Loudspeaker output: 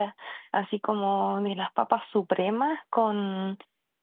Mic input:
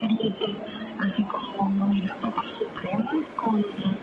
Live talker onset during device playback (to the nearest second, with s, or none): none